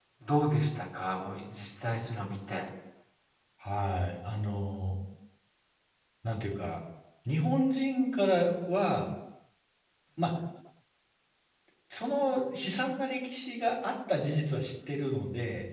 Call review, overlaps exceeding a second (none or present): none